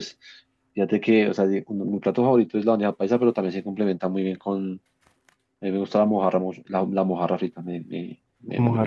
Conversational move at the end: listening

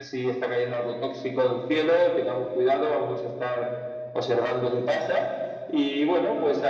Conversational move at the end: listening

